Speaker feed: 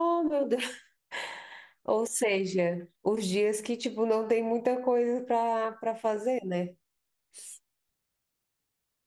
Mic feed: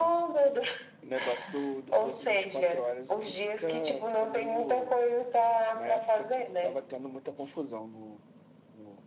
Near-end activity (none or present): present